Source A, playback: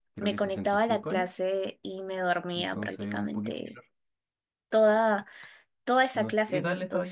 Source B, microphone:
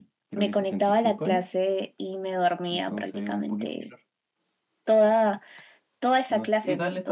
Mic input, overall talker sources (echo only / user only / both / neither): echo only